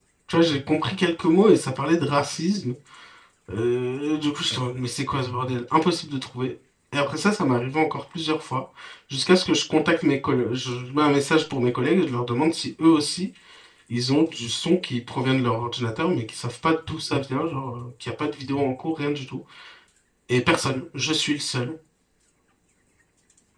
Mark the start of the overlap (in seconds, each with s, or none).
none